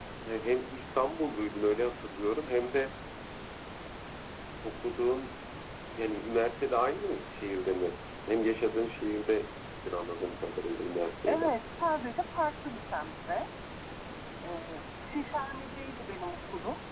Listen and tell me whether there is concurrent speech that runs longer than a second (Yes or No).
No